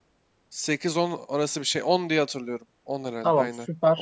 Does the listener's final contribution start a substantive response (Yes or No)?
Yes